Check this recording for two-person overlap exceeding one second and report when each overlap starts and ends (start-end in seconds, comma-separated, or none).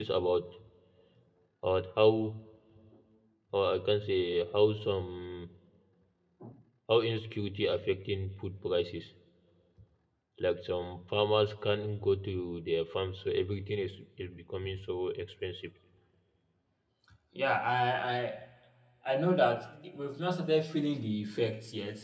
none